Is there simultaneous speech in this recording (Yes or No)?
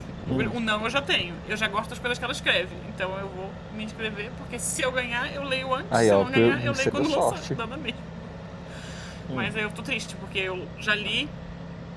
Yes